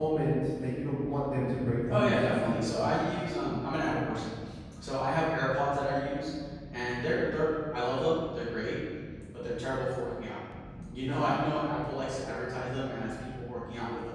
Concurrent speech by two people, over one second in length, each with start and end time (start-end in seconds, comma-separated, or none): 1.9-3.2